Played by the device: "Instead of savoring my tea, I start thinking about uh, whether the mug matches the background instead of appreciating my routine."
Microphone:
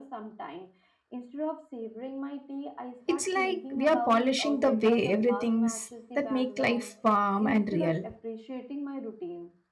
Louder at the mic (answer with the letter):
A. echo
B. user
B